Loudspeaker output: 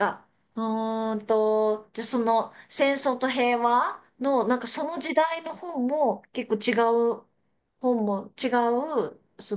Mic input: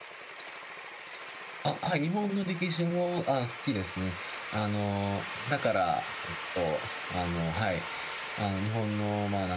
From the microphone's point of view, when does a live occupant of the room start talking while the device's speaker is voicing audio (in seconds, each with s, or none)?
1.6 s